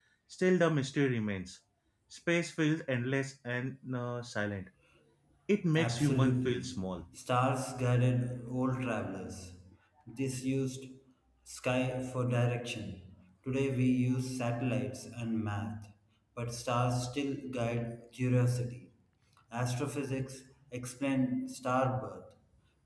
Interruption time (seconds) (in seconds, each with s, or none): 5.8 s